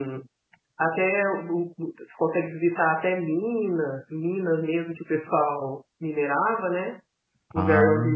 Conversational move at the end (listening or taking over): listening